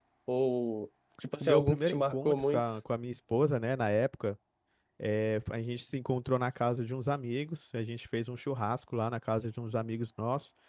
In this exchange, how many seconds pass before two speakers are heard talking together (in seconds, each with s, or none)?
1.4 s